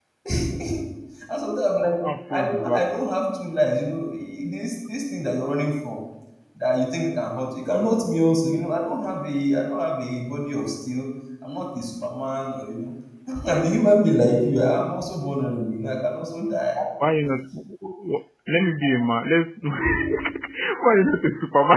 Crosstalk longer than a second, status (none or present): none